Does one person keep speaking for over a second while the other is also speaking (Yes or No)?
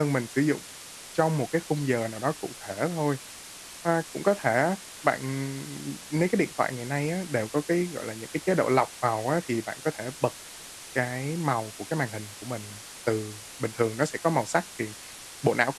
No